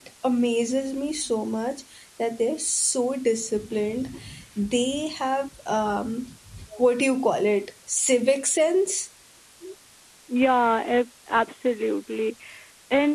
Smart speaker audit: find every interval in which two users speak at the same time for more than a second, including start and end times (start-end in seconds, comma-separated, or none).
none